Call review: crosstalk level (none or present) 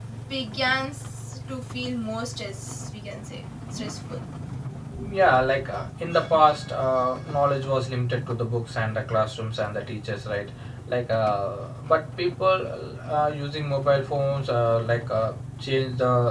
none